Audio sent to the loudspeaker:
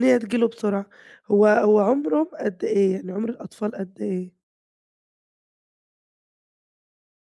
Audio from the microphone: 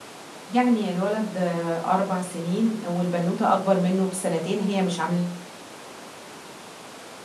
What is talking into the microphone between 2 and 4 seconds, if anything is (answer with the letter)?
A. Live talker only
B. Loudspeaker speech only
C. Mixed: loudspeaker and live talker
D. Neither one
A